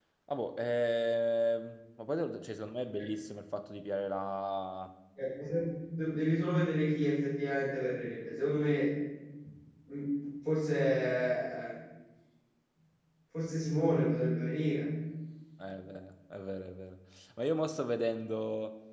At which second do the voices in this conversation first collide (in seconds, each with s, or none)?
none